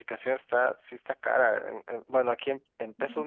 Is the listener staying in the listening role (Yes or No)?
Yes